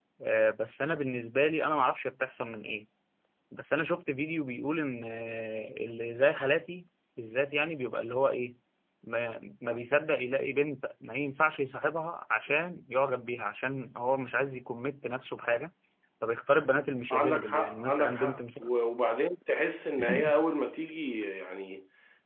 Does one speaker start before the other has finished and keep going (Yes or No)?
Yes